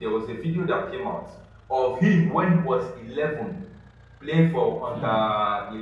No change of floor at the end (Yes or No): Yes